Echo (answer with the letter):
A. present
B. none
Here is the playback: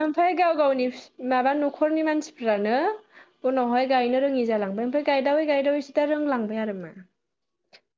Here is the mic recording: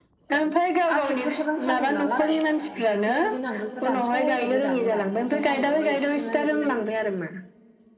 A